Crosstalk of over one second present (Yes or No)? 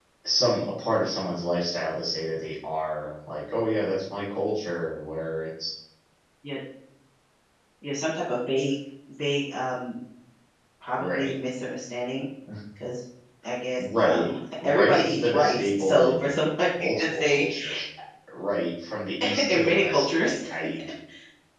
Yes